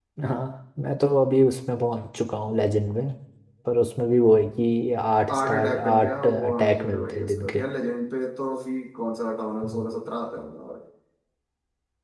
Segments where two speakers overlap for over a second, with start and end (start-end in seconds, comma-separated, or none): 5.3-7.6